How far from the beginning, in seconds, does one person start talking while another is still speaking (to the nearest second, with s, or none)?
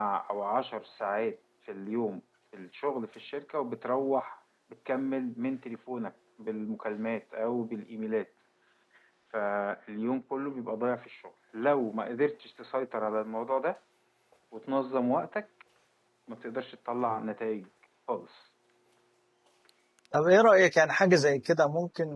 none